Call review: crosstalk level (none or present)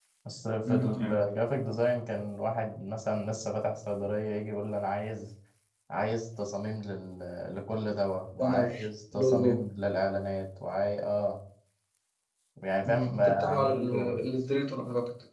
present